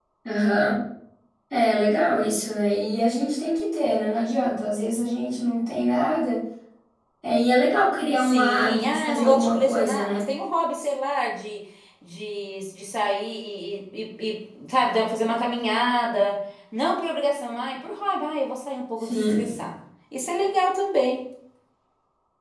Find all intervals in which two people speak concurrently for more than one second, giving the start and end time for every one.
8.2-10.2

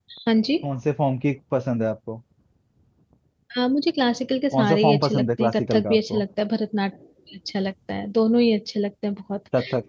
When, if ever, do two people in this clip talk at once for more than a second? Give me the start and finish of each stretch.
4.5-6.2

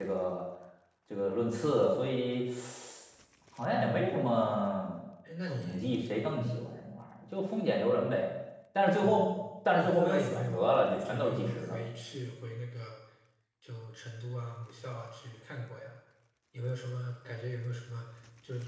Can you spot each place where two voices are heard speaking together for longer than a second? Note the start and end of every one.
9.7-11.8

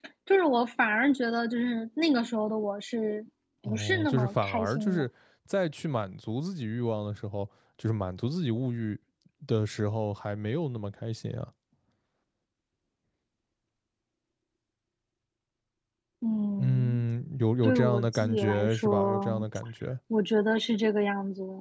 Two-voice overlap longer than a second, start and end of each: 3.6-5.0, 17.6-19.4

